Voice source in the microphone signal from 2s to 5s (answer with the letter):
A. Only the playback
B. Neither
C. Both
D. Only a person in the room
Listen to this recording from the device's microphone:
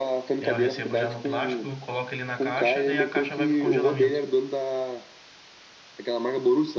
C